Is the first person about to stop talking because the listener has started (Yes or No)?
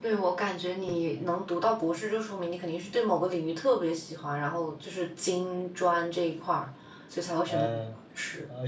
Yes